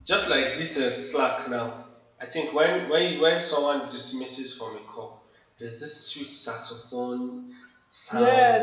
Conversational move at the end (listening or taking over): taking over